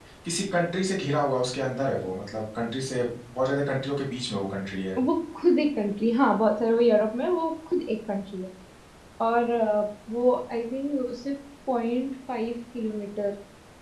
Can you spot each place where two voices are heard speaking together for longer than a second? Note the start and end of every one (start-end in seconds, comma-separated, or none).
none